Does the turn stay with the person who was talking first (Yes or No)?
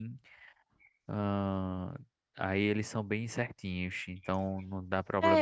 No